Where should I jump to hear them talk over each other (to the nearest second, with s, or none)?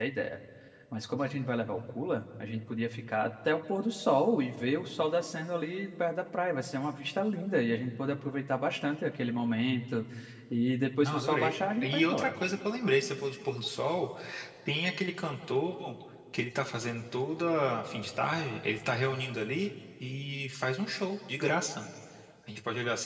11 s